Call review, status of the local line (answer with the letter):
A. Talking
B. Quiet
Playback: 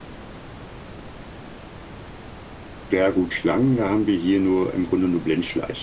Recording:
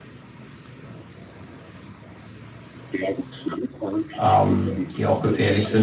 A